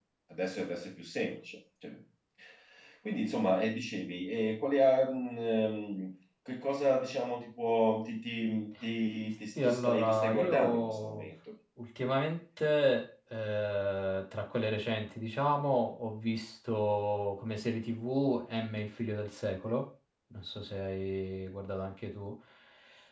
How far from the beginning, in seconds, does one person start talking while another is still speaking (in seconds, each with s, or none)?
9.6 s